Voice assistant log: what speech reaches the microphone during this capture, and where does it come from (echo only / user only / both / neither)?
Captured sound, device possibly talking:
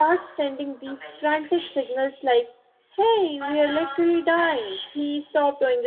both